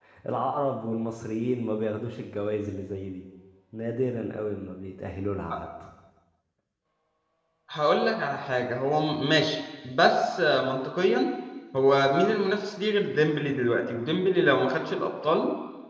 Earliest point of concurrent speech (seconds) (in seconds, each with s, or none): none